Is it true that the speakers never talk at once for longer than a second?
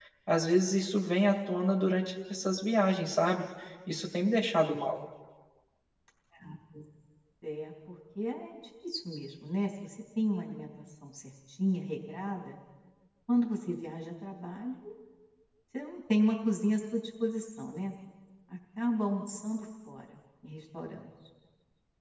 Yes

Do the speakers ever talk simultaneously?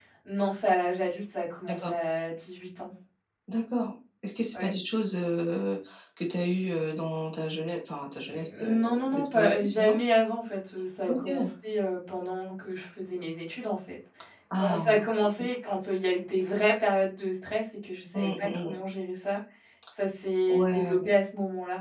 Yes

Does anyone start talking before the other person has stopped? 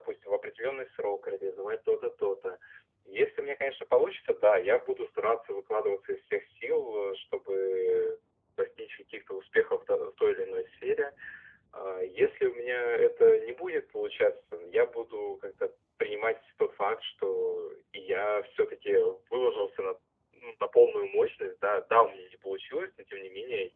No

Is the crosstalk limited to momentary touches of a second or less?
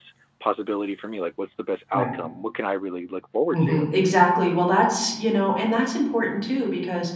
Yes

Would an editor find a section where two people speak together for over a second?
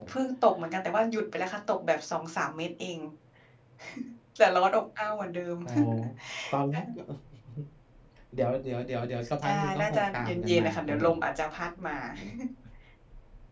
Yes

